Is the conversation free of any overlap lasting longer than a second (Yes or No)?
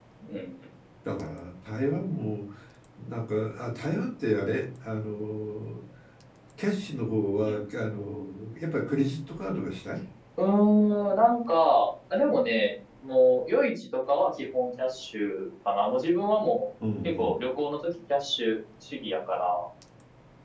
Yes